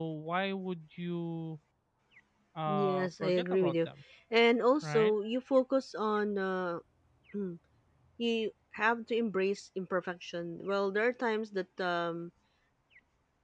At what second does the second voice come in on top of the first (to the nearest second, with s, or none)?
3 s